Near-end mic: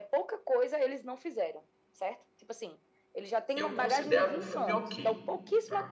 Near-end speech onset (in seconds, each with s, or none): 3.5 s